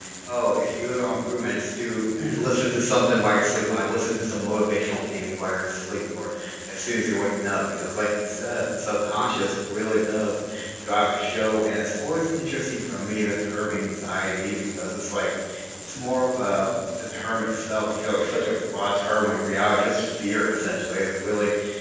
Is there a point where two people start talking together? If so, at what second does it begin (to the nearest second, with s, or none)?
none